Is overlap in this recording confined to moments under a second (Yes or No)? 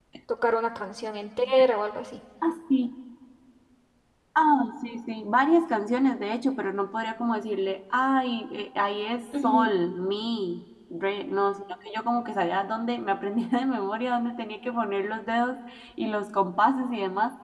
Yes